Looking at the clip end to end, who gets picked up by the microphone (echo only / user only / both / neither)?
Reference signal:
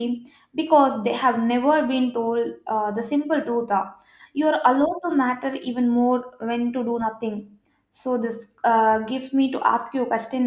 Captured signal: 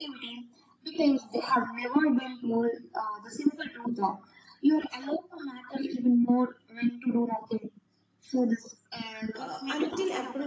both